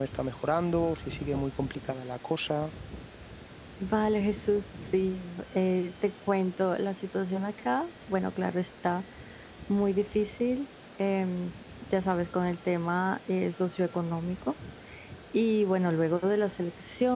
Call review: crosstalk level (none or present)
none